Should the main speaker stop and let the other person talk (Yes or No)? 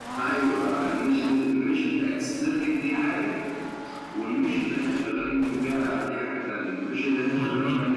No